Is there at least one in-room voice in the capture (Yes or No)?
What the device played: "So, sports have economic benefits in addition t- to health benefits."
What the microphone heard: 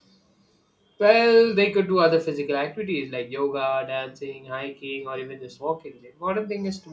Yes